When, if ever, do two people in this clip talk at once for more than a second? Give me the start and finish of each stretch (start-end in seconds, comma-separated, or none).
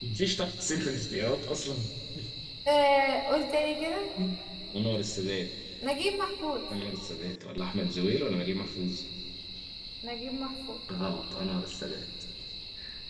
none